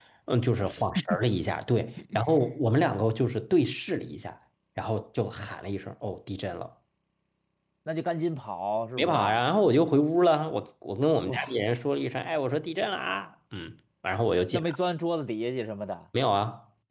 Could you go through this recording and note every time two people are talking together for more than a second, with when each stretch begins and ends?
none

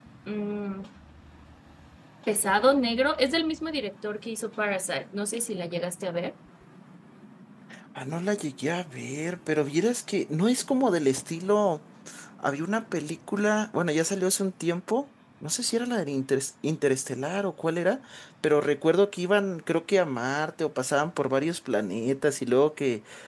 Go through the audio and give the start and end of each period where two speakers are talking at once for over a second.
none

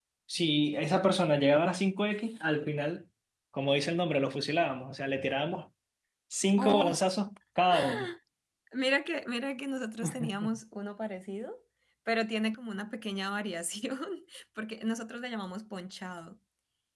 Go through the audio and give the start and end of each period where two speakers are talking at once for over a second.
none

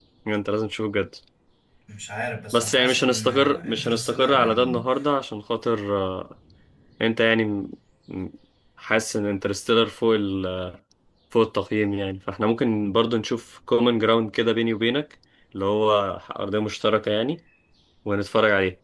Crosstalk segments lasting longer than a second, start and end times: 2.5-4.8

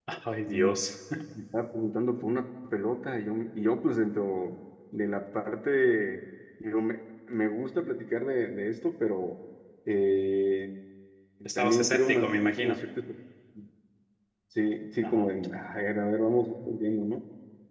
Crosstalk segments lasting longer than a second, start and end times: 11.6-12.8

